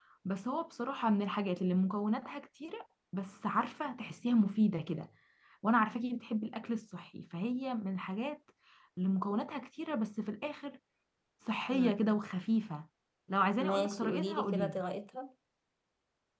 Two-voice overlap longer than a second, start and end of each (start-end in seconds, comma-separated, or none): 13.6-14.8